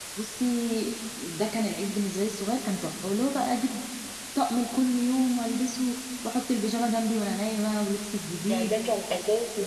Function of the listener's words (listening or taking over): taking over